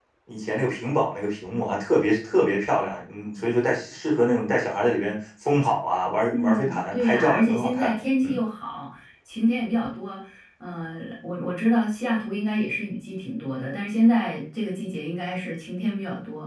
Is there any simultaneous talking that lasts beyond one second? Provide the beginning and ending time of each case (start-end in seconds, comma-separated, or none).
6.3-8.4